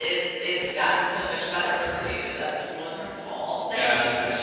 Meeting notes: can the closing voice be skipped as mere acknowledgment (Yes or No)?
Yes